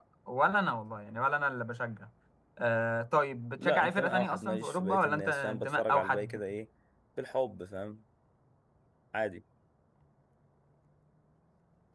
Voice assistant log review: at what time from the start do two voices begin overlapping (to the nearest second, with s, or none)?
4 s